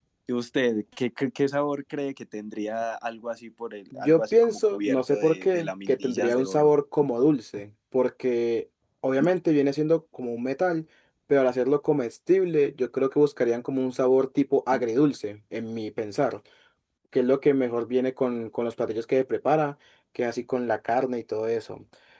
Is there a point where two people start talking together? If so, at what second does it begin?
3.9 s

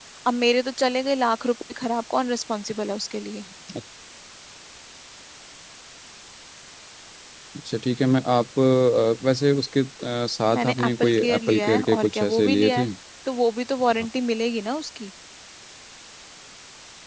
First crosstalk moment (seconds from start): 10.5 s

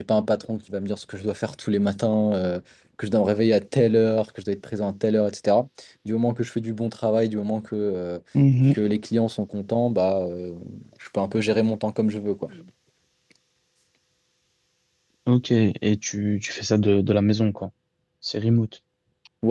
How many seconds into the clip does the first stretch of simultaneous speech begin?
none

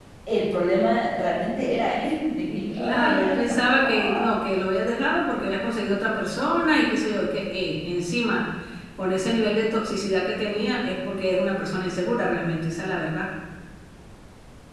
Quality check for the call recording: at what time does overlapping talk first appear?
2.4 s

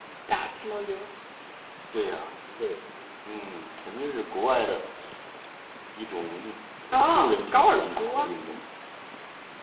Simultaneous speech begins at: 6.9 s

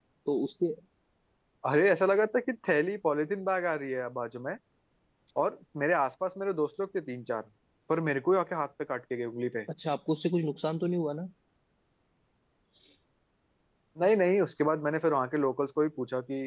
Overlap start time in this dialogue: none

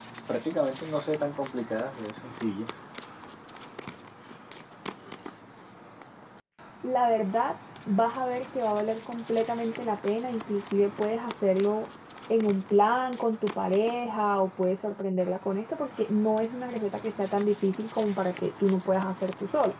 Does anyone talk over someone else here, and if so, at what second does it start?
none

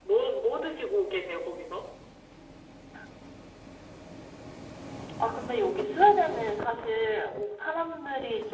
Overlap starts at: none

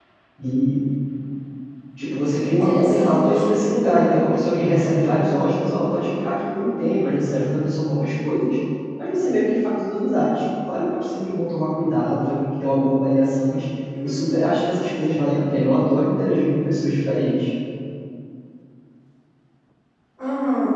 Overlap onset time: 2.0 s

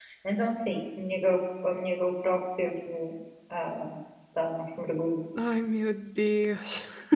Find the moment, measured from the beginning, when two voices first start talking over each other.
none

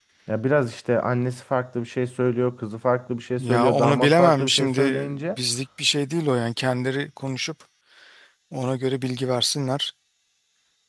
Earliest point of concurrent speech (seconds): 3.4 s

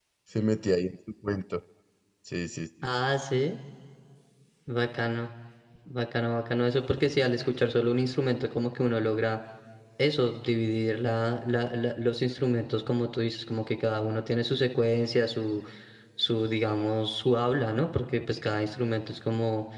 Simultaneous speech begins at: none

